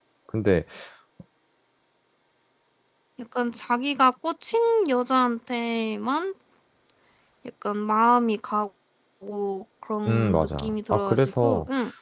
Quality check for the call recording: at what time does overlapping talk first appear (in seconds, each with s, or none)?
10.1 s